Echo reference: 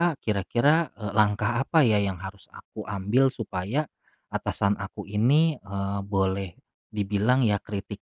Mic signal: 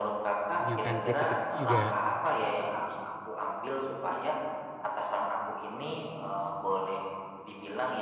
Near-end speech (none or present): present